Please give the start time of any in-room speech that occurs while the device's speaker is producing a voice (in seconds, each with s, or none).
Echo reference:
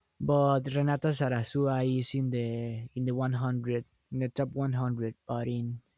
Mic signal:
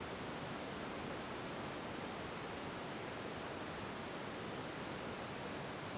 none